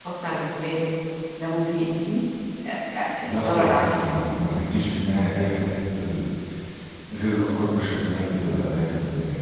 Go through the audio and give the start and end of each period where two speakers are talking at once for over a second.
3.2-4.6

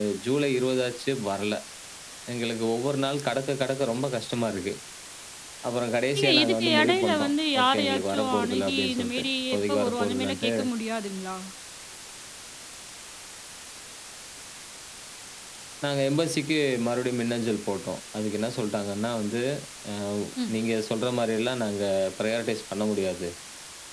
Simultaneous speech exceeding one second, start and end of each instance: 6.2-10.5

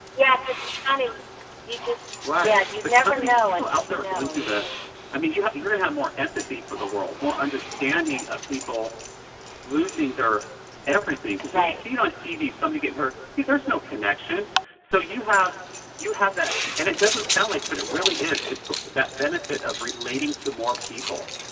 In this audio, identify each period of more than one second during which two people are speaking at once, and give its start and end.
2.4-4.7

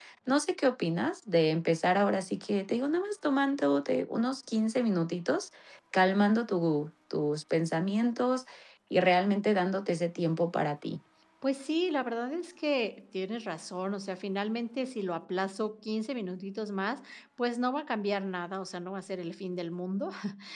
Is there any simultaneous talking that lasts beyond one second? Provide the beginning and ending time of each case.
none

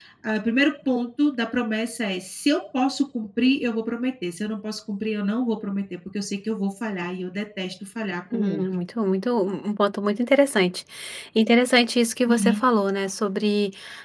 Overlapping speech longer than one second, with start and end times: none

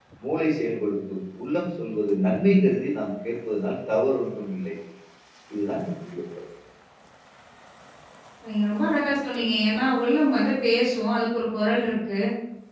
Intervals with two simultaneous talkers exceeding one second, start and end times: none

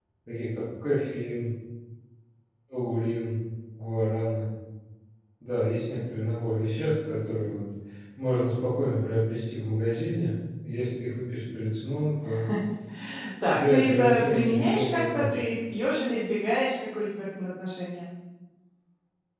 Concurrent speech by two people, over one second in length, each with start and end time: 13.5-15.4

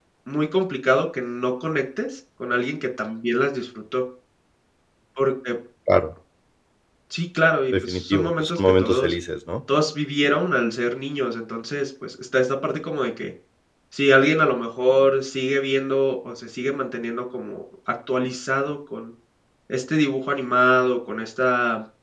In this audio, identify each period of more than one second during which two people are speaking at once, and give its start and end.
7.7-9.1

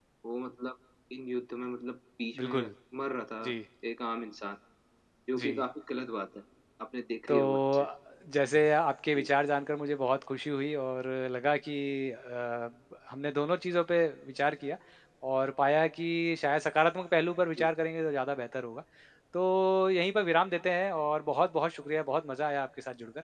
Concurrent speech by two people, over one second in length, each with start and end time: none

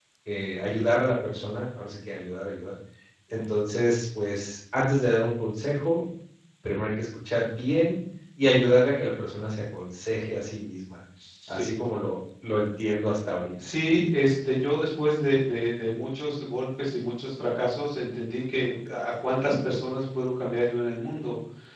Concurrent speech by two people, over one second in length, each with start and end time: none

